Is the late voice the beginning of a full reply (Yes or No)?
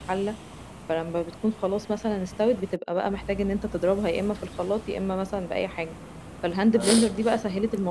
No